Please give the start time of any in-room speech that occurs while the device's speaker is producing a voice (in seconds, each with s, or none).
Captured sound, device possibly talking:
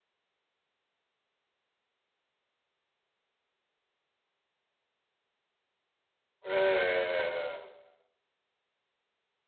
6.4 s